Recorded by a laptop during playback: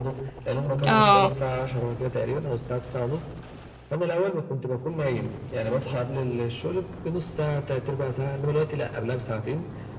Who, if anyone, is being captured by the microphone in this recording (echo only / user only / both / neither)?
both